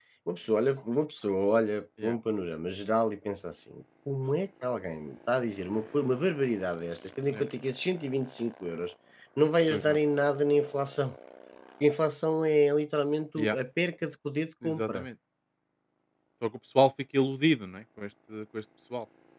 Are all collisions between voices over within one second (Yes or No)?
Yes